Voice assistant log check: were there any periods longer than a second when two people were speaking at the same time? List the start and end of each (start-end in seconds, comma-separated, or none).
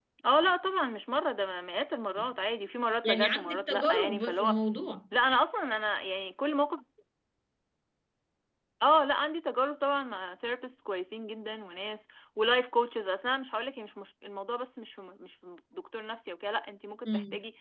3.0-4.6